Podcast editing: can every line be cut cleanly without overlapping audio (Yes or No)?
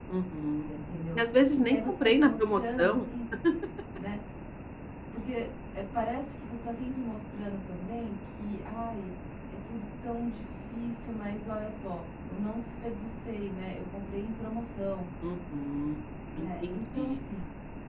No